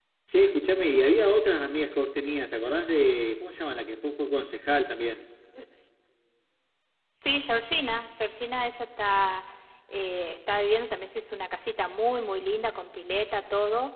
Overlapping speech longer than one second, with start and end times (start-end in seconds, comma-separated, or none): none